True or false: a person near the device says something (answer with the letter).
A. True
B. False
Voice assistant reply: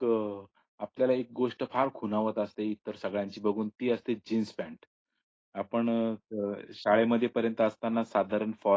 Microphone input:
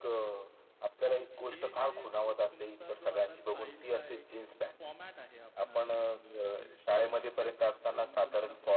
A